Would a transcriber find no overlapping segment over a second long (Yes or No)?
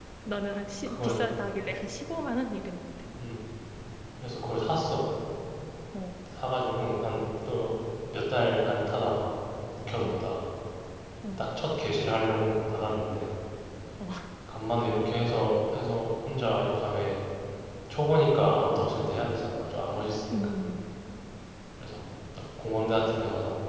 Yes